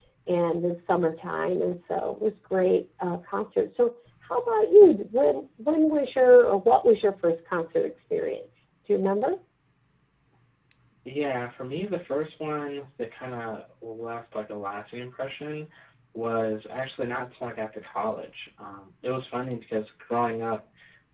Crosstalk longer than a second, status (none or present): none